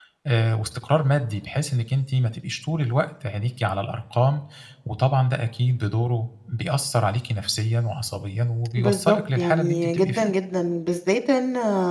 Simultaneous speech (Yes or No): Yes